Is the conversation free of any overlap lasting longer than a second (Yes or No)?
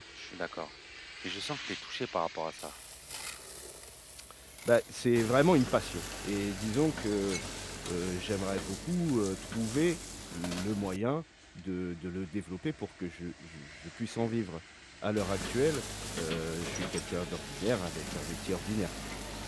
Yes